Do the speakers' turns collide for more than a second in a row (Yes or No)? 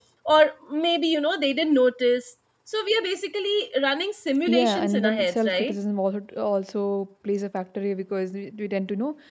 Yes